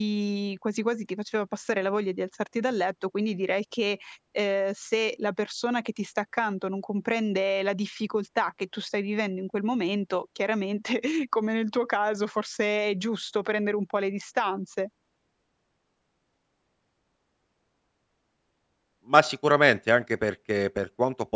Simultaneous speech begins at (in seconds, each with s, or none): none